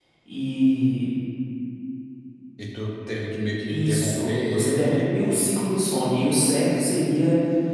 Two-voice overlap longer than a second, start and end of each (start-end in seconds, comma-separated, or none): 3.7-5.0